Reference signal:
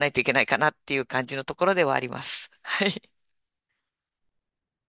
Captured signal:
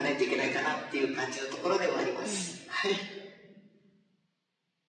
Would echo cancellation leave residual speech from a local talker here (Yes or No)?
Yes